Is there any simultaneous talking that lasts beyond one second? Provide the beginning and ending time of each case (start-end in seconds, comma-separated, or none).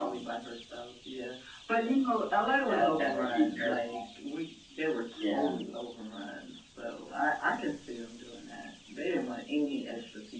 2.6-4.0